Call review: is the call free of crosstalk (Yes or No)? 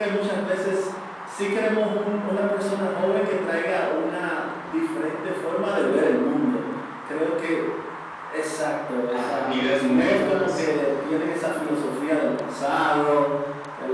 No